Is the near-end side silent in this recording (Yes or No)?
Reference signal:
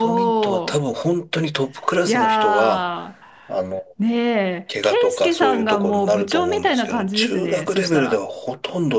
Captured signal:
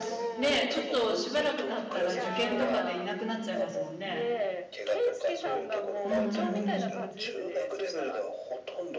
No